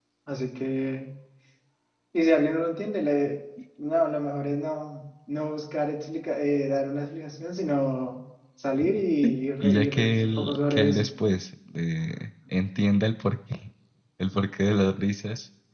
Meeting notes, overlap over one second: present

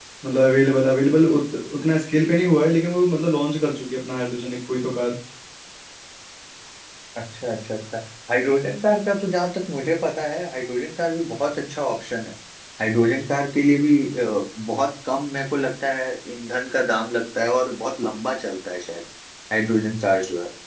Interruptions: none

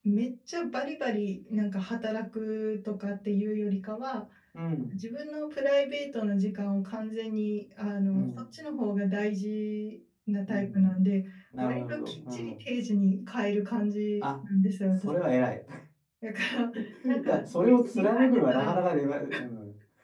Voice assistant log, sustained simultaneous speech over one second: present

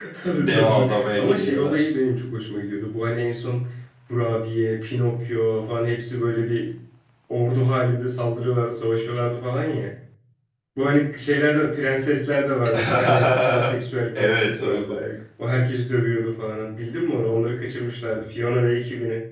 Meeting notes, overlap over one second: present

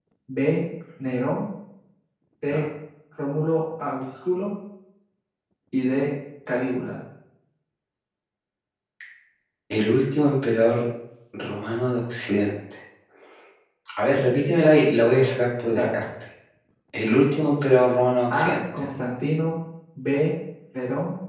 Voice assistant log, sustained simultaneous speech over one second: none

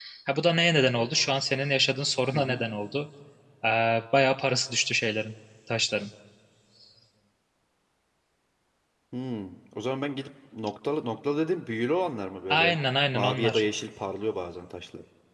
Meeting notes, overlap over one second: none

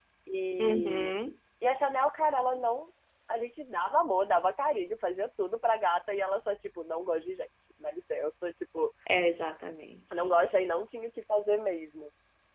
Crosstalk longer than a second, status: none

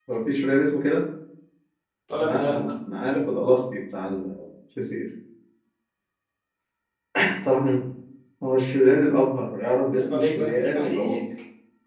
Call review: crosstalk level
present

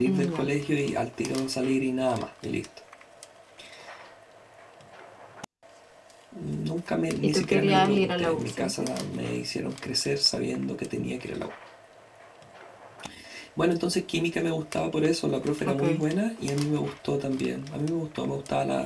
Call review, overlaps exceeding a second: present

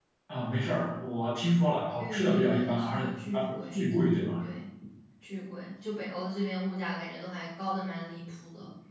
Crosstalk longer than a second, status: present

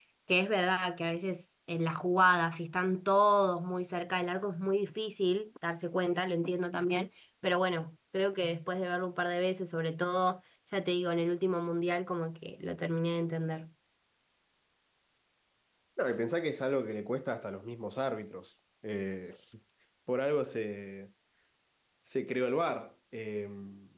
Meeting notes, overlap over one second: none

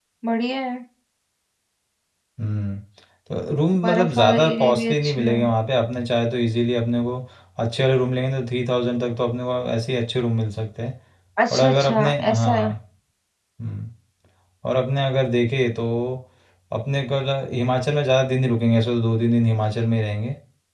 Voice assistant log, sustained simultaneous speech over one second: present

